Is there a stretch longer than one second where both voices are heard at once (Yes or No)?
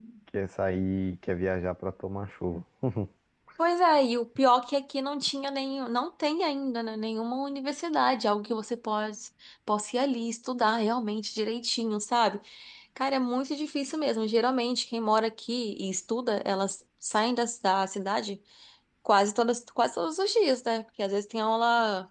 No